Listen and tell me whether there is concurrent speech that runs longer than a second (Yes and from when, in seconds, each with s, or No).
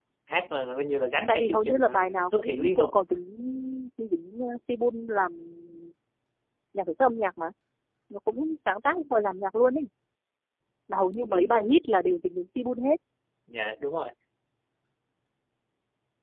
Yes, from 1.3 s